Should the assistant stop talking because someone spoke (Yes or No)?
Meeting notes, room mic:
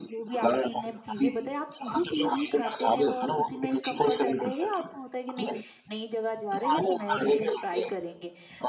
Yes